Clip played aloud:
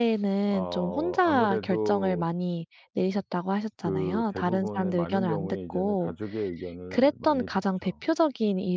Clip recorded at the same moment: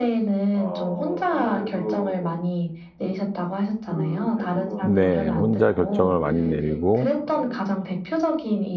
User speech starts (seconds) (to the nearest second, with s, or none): 5 s